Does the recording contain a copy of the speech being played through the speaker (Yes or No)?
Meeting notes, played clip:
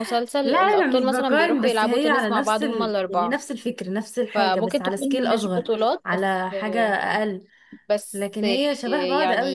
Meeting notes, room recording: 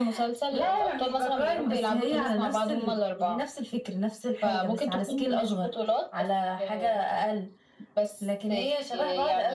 Yes